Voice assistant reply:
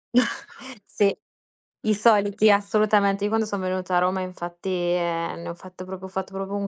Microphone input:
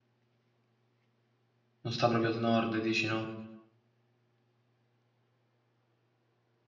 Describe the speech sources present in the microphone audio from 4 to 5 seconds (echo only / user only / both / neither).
neither